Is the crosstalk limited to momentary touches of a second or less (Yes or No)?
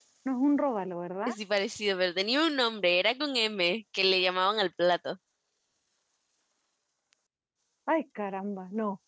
Yes